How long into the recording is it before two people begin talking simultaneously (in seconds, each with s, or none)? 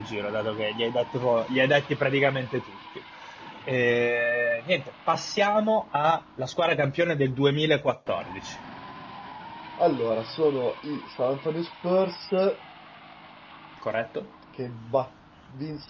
none